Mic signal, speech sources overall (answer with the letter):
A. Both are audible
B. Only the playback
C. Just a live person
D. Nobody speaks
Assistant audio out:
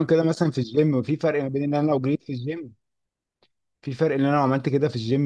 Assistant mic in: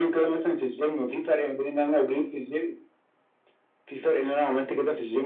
B